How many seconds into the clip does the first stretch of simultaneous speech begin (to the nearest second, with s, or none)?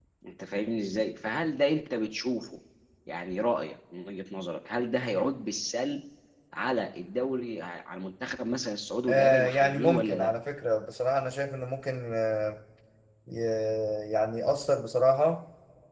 9 s